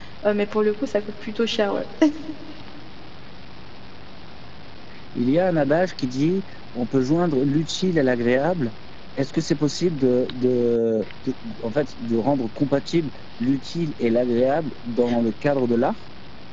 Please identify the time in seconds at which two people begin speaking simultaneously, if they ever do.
none

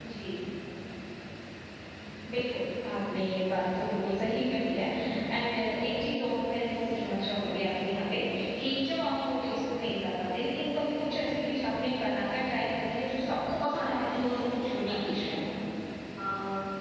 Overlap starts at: 13.4 s

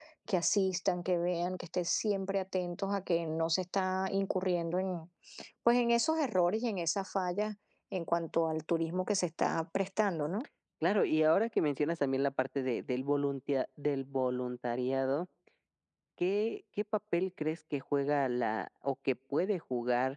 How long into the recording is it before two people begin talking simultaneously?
none

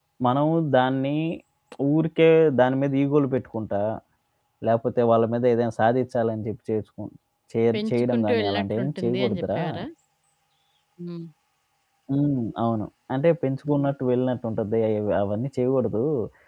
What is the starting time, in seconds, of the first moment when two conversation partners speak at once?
7.7 s

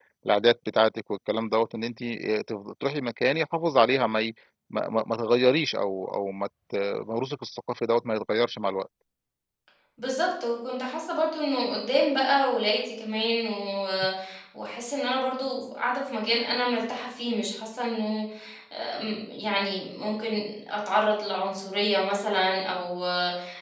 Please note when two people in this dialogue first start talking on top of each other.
none

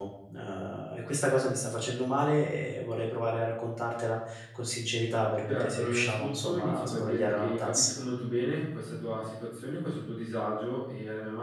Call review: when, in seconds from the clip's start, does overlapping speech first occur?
5.5 s

